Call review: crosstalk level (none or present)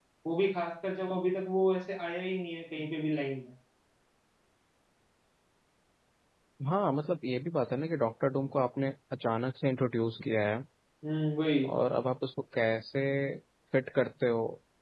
none